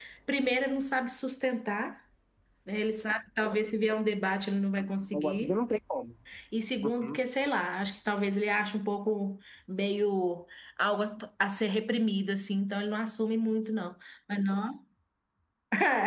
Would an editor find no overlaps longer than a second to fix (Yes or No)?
Yes